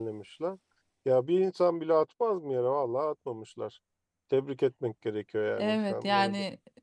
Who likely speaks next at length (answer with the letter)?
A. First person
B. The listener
B